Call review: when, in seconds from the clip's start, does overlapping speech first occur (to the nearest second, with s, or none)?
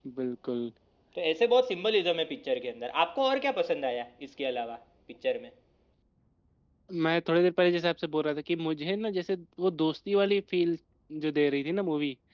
none